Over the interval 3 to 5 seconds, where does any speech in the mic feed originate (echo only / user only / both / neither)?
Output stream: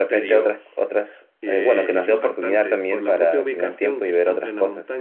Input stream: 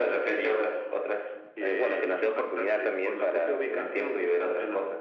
echo only